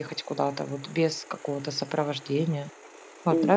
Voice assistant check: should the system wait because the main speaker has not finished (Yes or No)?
No